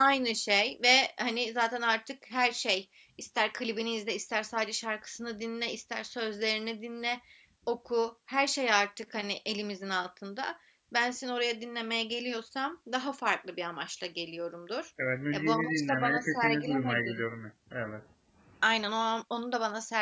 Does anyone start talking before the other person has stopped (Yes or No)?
Yes